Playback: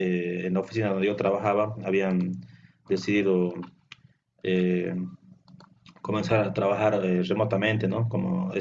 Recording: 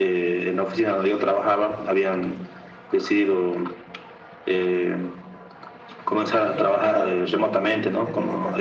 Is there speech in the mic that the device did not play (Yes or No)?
Yes